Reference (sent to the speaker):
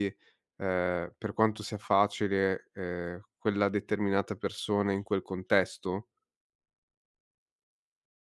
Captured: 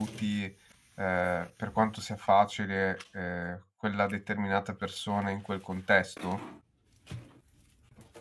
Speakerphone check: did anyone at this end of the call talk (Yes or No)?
No